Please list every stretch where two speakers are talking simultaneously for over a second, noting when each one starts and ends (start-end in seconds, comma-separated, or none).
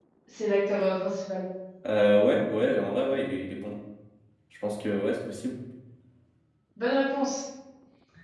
none